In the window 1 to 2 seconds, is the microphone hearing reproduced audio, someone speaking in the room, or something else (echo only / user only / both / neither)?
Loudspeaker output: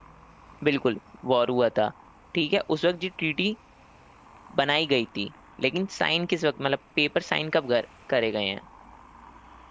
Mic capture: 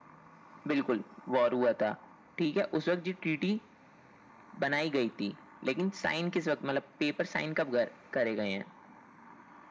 echo only